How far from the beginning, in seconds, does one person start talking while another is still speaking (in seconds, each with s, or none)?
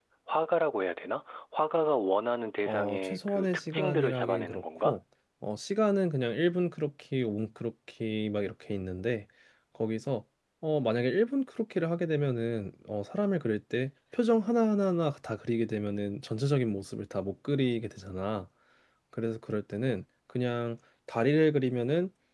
2.7 s